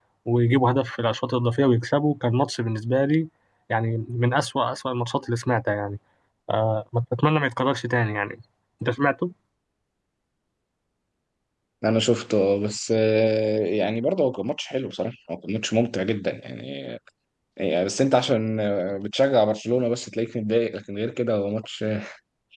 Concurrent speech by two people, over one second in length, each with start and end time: none

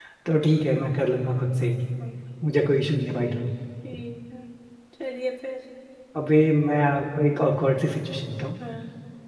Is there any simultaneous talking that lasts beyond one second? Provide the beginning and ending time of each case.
none

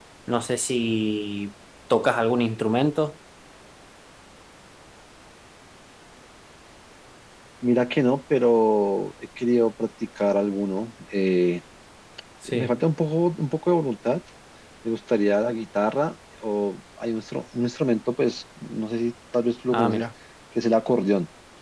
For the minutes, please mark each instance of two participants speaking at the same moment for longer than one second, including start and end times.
none

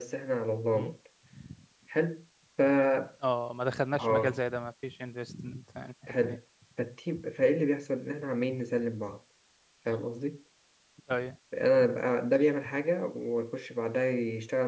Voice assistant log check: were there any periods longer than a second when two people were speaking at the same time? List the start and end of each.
none

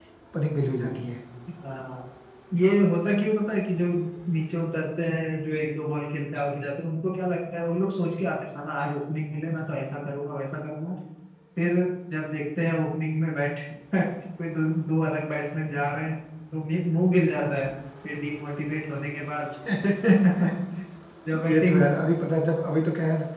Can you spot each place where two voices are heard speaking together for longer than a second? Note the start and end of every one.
none

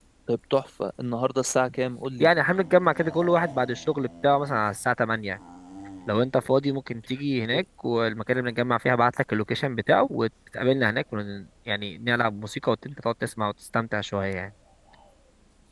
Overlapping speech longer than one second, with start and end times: none

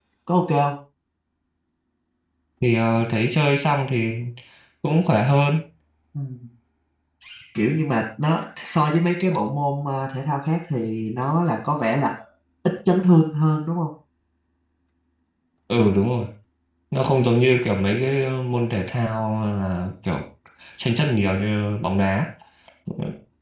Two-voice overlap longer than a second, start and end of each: none

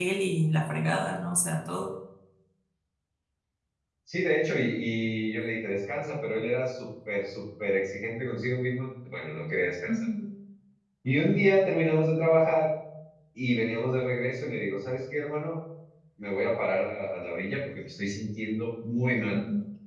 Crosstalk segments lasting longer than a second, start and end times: none

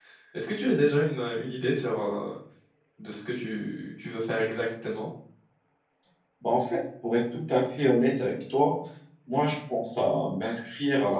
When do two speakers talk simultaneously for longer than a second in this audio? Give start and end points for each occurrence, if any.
none

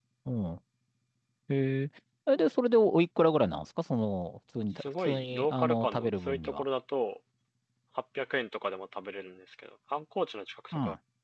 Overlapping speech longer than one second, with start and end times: 4.8-6.6

